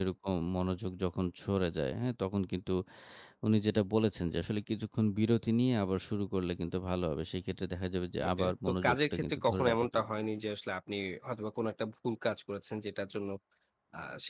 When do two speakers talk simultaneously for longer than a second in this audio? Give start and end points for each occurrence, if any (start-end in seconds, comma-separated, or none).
8.3-10.1